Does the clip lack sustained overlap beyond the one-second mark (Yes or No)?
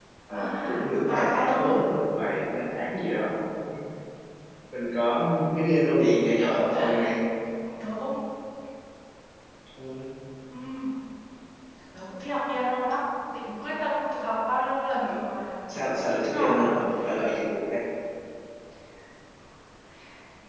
No